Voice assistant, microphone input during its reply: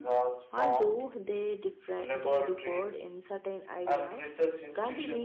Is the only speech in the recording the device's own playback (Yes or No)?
Yes